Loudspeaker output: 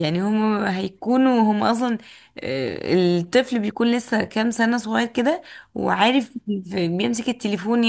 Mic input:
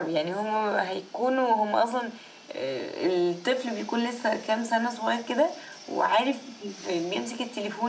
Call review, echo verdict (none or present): present